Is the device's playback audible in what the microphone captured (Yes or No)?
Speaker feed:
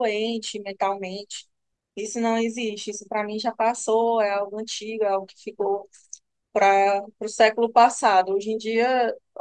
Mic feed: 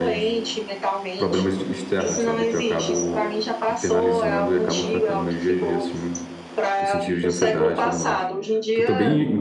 Yes